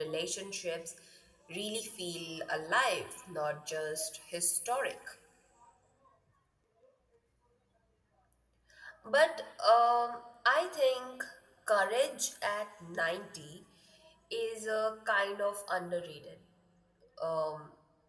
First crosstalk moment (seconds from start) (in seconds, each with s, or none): none